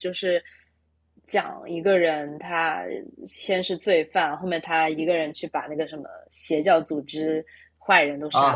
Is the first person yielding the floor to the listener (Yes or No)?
Yes